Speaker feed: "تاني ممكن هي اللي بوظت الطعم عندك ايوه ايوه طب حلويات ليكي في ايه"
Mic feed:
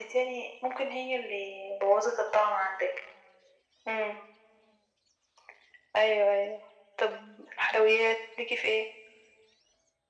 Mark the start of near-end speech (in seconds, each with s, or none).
none